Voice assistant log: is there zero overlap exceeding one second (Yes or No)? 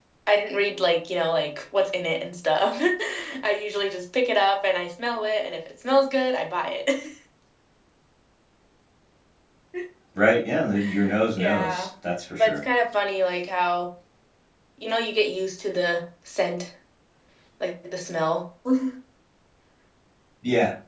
Yes